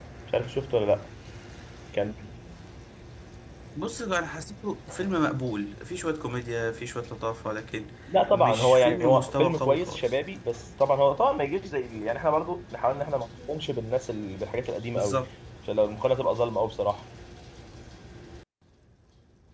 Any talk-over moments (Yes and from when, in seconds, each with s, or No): Yes, from 8.3 s